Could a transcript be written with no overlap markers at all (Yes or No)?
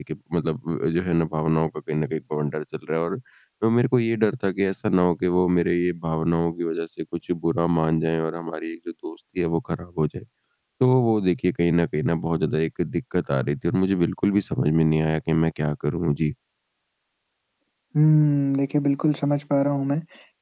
Yes